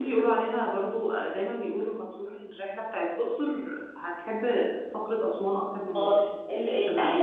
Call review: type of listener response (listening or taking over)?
taking over